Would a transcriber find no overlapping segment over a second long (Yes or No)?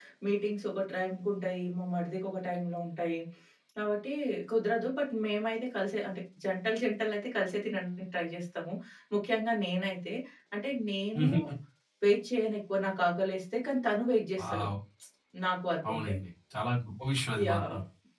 Yes